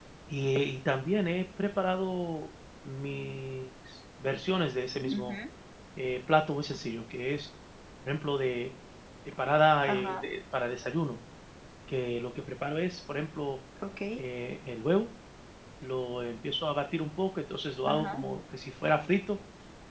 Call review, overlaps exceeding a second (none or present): none